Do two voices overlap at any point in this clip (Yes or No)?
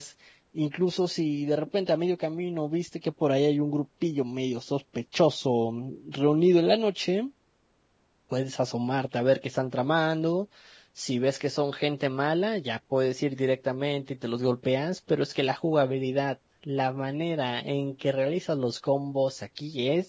No